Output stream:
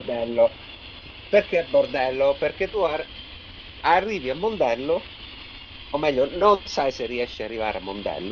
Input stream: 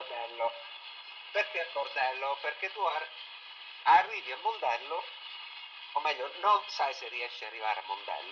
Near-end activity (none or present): none